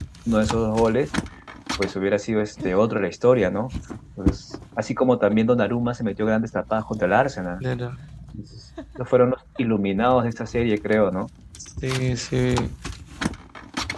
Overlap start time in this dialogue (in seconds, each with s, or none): none